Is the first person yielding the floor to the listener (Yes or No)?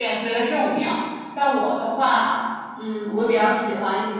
No